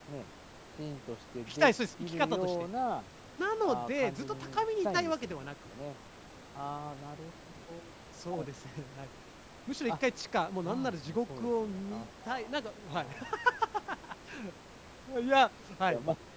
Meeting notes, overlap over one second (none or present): present